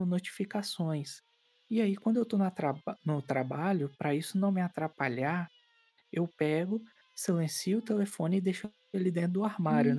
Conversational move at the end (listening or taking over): taking over